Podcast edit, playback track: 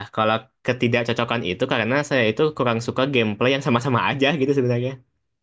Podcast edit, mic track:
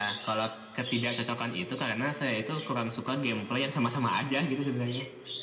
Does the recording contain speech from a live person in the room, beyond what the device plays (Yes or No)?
No